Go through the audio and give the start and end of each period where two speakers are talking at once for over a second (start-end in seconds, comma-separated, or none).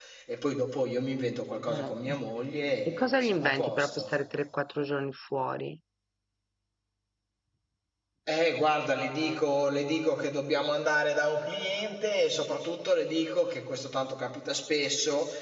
2.9-4.1